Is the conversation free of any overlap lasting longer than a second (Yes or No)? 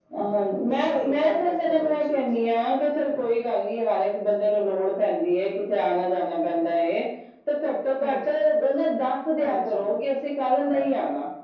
No